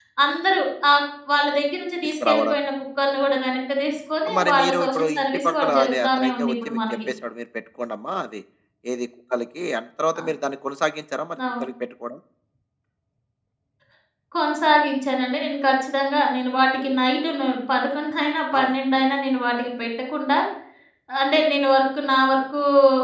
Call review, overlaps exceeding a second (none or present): present